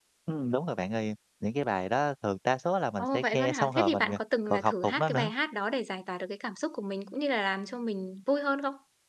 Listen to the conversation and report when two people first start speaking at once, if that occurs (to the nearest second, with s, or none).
3 s